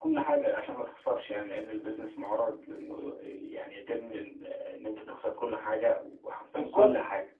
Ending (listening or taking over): taking over